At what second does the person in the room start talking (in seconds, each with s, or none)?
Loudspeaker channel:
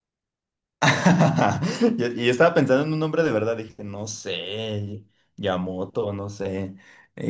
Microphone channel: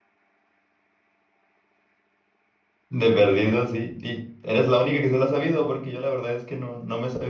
2.9 s